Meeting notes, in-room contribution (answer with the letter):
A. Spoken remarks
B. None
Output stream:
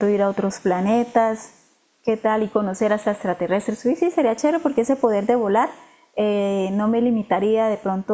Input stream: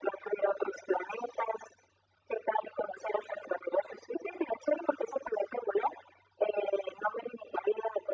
B